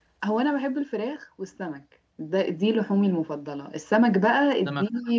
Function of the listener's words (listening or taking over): listening